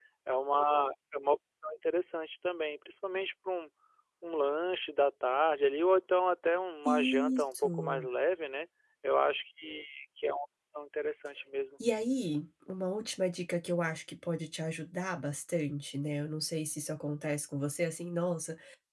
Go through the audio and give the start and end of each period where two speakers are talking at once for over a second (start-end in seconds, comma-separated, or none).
6.8-8.1